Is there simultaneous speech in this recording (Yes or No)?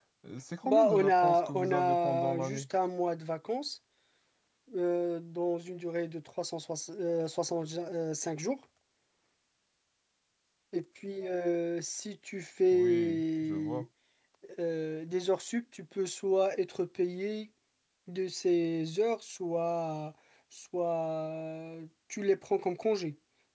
Yes